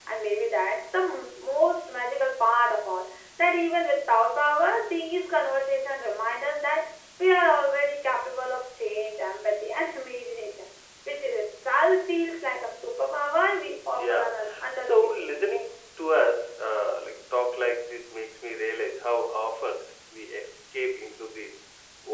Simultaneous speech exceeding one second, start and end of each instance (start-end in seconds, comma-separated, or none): 13.9-15.2